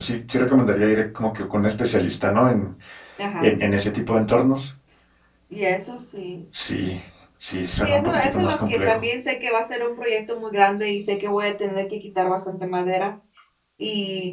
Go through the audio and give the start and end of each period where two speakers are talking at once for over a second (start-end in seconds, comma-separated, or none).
7.8-9.0